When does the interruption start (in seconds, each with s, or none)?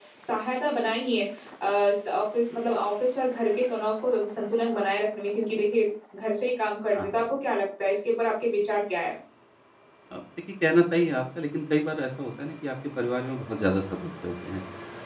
none